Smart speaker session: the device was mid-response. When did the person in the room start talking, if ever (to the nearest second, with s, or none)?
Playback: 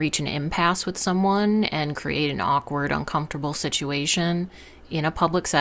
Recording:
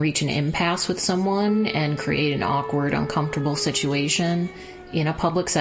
none